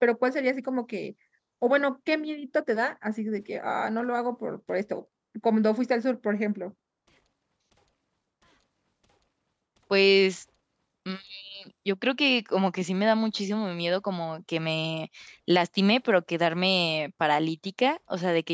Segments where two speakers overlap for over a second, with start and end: none

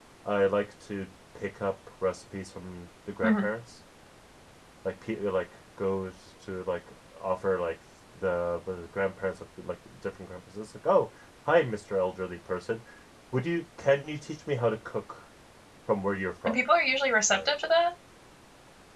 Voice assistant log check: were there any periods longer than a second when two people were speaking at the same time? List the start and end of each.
none

